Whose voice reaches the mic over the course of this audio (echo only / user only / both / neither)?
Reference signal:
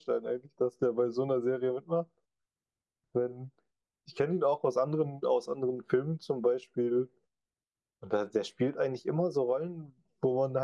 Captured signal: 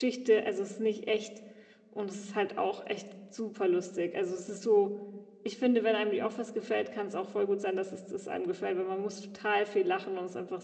user only